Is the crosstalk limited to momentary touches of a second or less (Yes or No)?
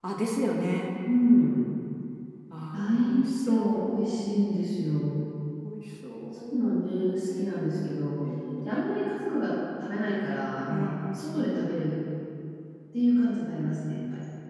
No